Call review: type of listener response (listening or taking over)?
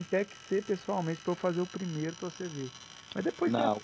listening